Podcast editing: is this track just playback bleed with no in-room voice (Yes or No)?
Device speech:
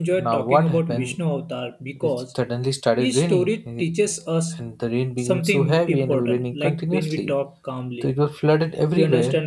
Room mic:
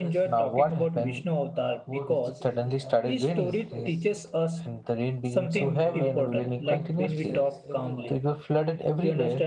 No